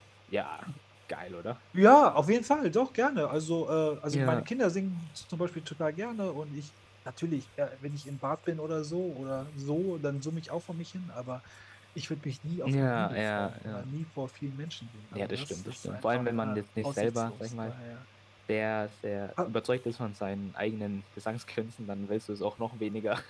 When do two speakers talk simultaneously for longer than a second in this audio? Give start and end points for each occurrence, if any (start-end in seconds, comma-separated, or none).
12.6-13.9, 15.1-17.7